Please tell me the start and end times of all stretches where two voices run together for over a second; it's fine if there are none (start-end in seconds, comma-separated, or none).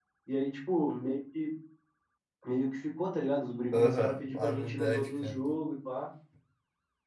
3.7-5.4